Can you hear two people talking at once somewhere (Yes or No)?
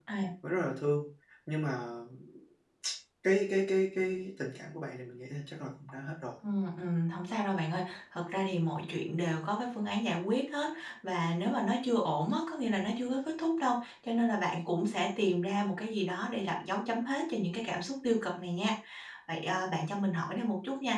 No